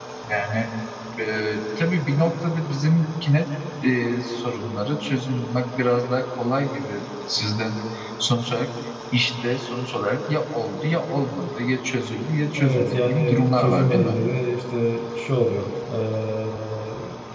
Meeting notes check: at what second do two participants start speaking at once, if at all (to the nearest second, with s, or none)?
13 s